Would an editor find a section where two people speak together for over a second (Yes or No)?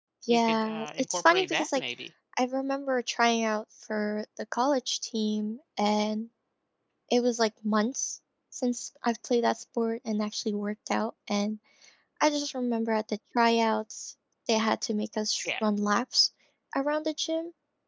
Yes